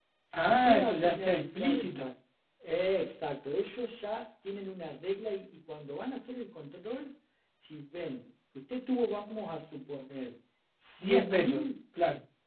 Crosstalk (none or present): present